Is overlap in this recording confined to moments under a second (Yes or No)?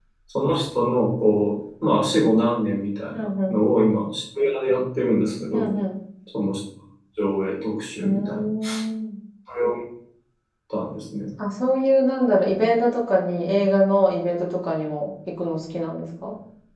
Yes